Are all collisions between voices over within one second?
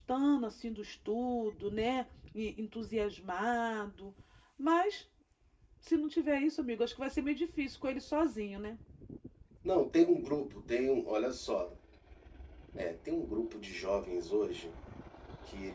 Yes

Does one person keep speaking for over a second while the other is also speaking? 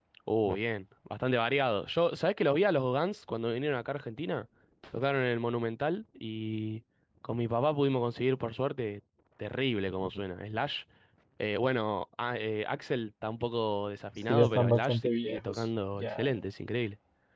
Yes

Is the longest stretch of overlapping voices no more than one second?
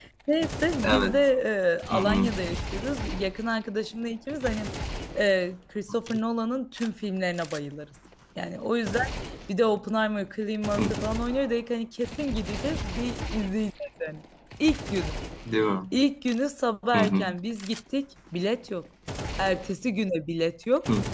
Yes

